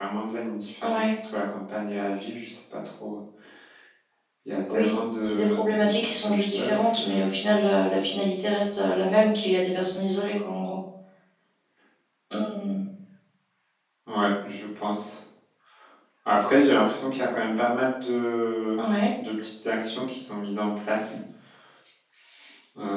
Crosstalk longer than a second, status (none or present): present